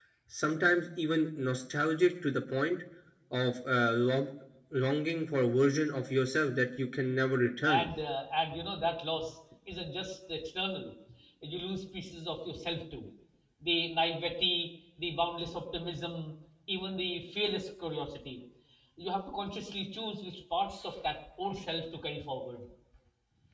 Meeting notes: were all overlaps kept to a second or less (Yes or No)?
Yes